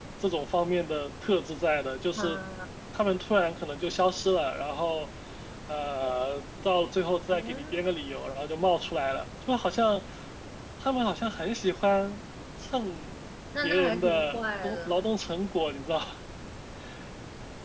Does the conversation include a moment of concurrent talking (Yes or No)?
Yes